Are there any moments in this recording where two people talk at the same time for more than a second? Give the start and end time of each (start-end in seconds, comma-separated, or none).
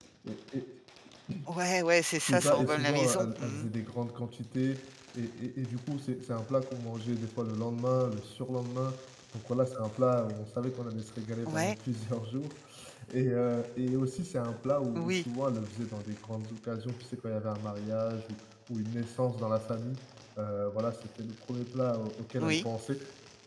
2.2-3.7